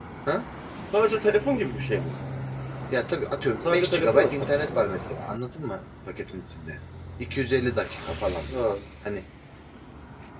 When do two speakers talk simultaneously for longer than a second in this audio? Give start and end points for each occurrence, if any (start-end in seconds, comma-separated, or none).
3.6-4.8